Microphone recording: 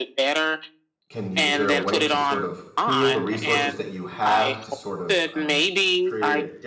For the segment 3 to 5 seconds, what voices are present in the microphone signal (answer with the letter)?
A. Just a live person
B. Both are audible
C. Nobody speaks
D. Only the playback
B